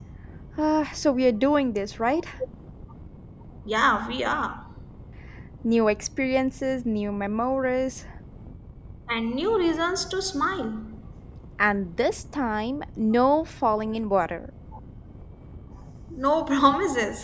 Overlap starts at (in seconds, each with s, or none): none